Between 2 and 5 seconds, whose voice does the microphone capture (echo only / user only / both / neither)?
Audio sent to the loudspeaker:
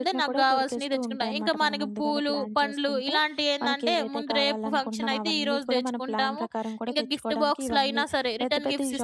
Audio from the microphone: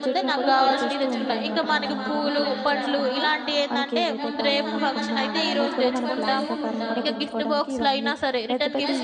both